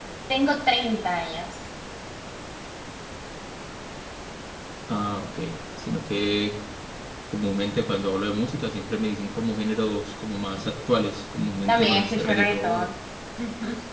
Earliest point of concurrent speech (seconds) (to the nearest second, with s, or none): 12 s